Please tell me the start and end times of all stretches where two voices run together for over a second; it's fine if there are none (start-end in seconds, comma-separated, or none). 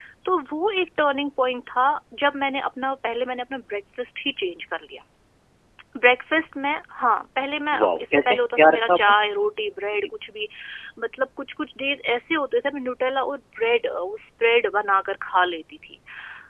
7.7-9.0